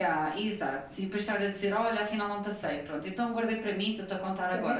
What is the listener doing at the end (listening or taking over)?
taking over